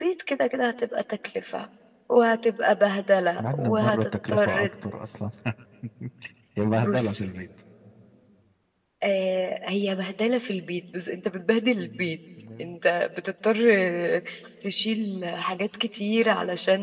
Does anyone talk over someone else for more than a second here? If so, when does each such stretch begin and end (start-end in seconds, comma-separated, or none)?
3.4-4.7